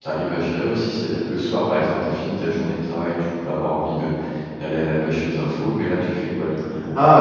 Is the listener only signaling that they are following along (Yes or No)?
No